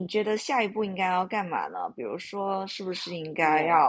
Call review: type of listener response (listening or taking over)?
listening